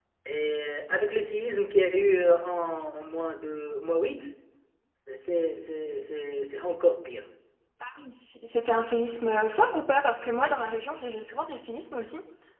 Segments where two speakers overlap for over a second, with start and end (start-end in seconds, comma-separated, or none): none